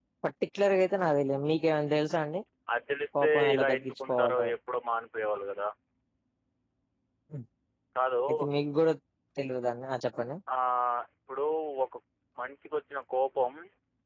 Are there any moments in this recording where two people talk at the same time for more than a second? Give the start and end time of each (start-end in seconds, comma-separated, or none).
3.2-4.5